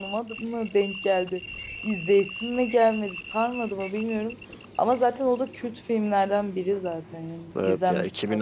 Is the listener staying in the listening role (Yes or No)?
No